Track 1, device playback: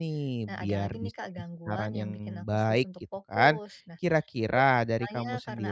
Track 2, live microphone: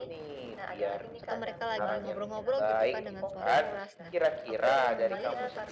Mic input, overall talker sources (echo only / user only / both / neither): both